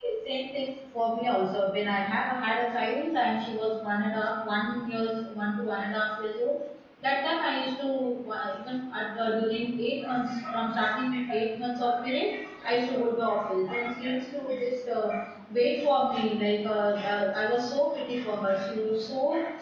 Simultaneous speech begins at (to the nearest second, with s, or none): none